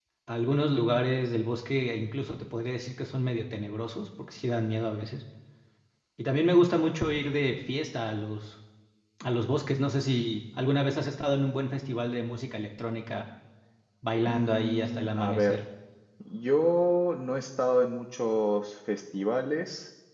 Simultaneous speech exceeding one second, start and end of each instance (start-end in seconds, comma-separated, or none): 14.3-15.6